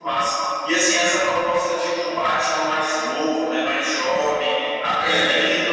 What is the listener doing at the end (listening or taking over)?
listening